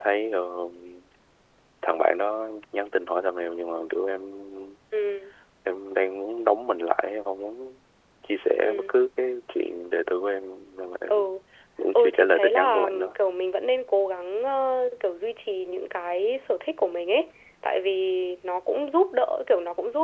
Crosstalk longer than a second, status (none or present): present